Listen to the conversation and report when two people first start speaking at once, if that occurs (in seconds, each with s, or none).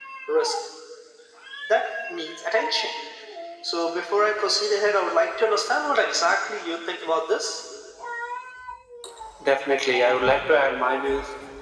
none